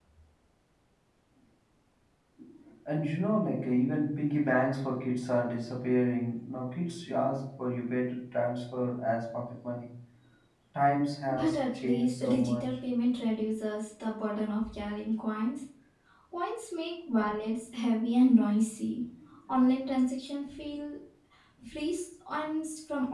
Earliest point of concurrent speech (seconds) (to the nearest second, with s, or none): 11 s